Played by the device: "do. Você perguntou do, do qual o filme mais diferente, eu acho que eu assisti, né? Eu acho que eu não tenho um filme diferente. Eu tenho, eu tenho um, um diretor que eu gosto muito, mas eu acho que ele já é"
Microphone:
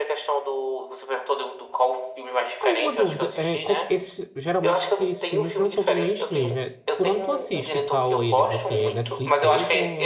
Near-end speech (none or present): present